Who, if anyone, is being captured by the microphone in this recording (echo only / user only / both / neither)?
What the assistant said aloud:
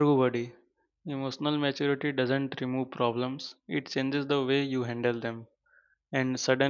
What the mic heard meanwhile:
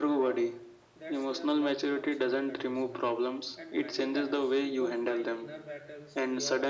both